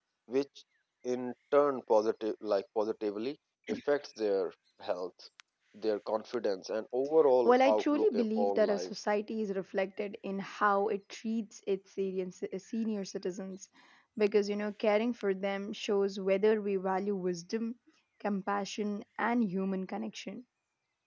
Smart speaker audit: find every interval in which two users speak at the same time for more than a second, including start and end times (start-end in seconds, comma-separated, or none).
7.4-8.9